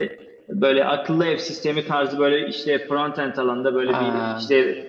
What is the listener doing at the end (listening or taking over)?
listening